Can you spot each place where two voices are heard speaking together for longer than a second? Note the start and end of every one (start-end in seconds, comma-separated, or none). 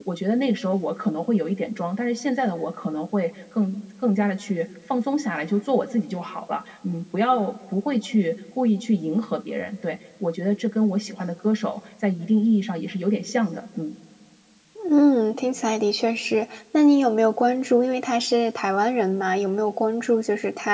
none